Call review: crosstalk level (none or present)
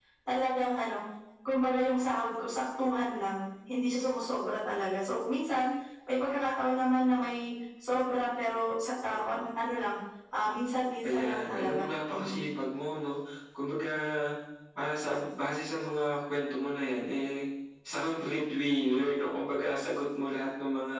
present